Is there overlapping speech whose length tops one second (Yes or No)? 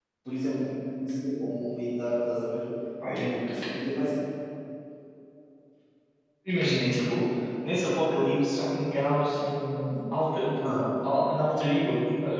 No